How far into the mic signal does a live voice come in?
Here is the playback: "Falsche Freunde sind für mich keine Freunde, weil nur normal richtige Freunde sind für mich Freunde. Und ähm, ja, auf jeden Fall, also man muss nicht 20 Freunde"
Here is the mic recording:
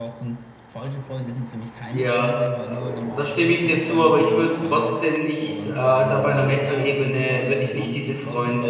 1.9 s

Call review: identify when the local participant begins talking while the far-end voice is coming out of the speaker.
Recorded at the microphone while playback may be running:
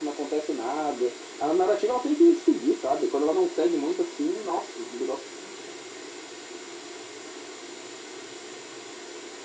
none

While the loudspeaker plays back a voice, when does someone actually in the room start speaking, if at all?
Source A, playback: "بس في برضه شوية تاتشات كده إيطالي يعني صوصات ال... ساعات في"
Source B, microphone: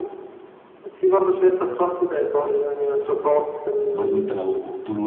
3.9 s

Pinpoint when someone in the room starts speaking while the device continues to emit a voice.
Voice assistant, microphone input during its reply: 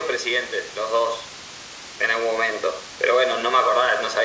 none

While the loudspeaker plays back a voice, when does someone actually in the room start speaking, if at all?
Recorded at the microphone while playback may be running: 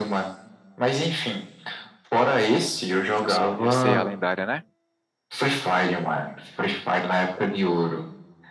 3.1 s

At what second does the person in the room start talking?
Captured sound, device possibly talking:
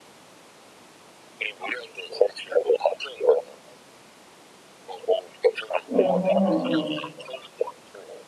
5.9 s

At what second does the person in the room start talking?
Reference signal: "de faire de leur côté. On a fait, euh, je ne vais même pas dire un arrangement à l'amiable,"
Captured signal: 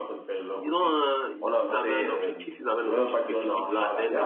0.6 s

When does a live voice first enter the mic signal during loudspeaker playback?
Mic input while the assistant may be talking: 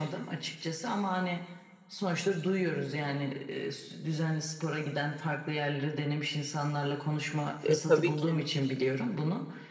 7.6 s

